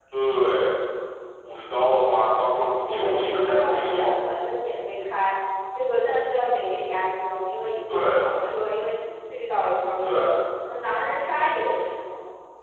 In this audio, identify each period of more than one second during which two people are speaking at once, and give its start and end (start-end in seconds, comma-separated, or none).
2.9-4.1